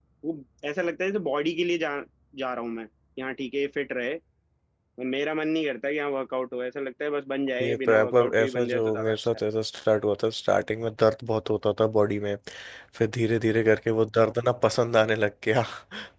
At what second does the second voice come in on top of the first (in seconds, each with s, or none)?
7.6 s